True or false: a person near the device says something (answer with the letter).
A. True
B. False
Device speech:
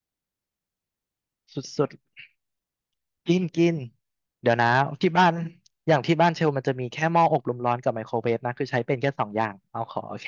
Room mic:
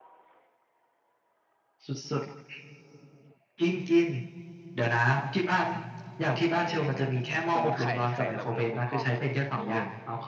A